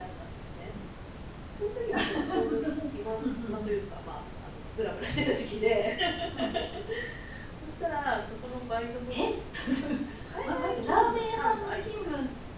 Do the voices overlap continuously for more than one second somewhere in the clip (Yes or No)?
Yes